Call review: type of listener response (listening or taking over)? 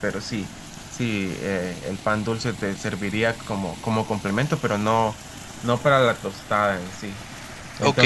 taking over